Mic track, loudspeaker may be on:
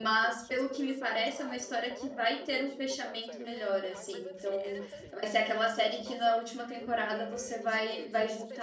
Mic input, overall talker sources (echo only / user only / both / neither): both